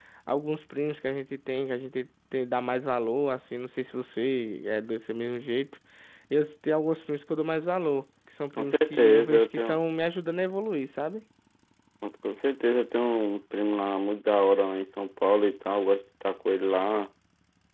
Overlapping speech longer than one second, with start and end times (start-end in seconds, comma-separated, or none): 8.6-9.8